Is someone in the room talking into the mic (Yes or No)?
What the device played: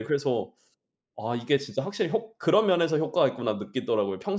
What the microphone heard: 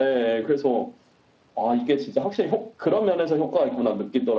No